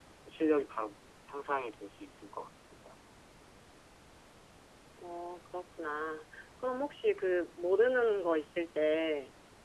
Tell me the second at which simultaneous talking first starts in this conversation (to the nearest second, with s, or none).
none